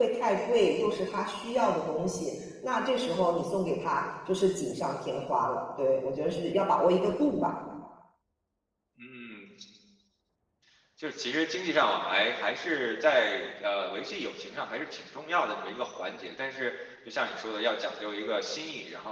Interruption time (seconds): none

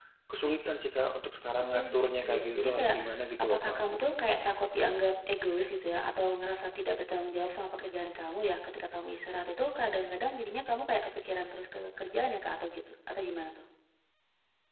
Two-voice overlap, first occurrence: 1.6 s

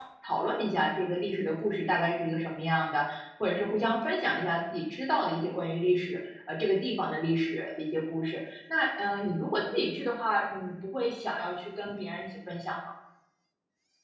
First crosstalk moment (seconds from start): none

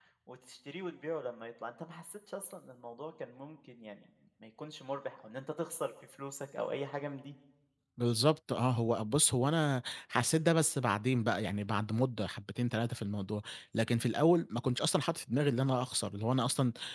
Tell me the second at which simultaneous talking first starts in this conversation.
none

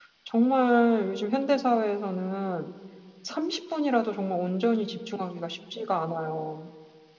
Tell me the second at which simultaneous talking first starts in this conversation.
none

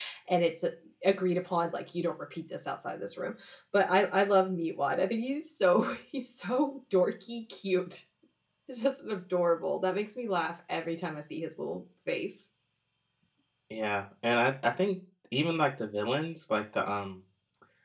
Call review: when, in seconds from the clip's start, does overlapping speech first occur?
none

